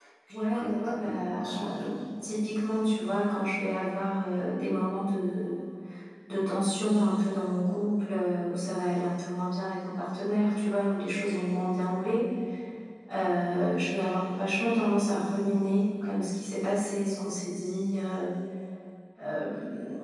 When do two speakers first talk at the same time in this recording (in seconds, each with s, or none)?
0.5 s